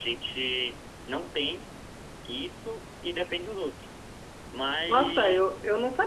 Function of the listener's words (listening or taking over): taking over